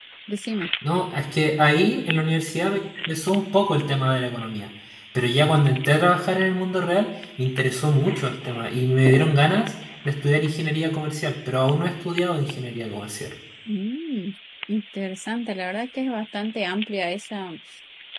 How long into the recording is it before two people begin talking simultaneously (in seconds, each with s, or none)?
none